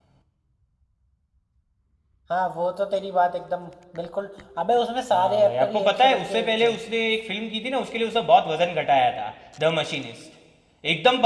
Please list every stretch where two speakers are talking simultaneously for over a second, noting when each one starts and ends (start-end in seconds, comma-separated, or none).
5.1-6.7